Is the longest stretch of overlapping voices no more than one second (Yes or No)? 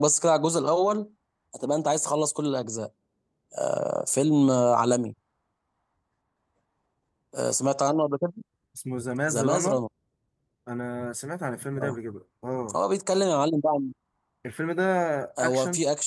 Yes